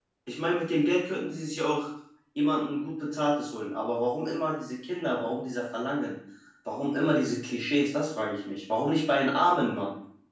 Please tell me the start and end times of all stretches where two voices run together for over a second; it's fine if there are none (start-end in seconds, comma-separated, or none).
none